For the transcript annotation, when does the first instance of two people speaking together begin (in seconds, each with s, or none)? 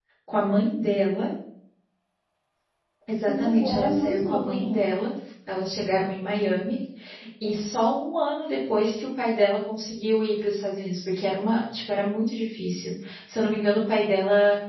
3.3 s